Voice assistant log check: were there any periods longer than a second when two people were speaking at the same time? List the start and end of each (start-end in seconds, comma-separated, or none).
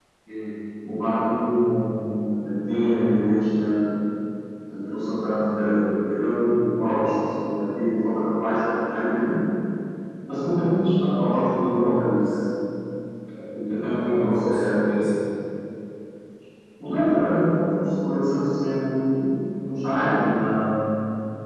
13.7-15.0